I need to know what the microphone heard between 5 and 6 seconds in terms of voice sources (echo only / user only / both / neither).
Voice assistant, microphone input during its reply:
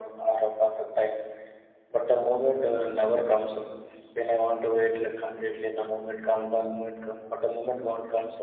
echo only